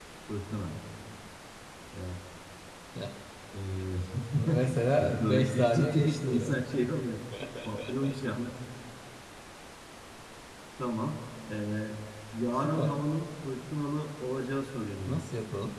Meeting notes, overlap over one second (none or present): present